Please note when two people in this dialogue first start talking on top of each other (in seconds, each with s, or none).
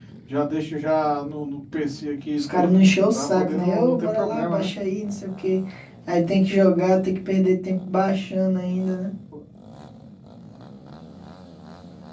2.4 s